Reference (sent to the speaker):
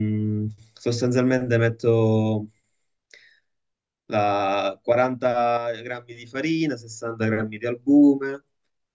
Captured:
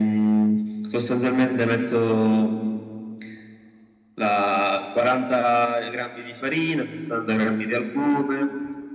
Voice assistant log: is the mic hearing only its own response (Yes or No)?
Yes